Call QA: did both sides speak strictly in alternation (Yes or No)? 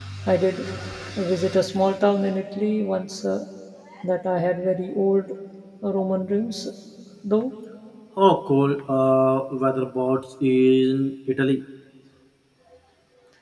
Yes